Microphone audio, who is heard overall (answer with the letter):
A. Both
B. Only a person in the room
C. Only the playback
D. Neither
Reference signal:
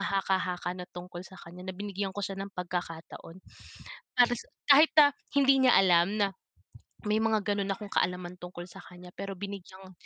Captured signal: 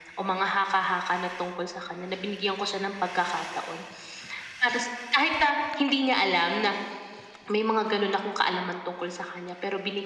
C